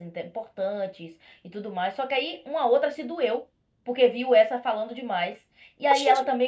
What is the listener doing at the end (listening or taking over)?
listening